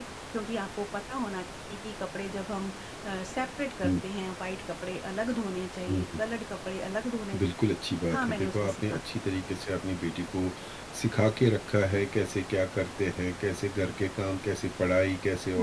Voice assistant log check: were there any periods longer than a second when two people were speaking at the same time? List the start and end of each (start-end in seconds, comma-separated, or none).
8.2-9.5